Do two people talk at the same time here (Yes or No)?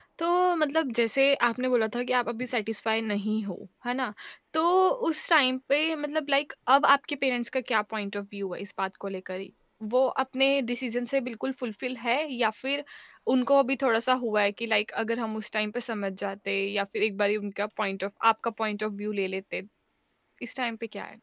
No